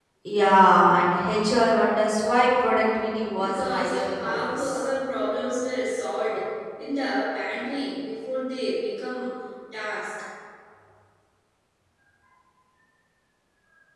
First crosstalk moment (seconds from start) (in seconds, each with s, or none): 3.4 s